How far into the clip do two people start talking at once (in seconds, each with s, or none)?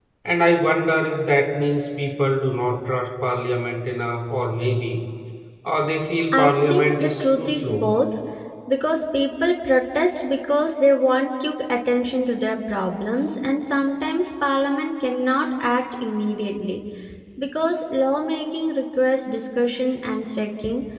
6.3 s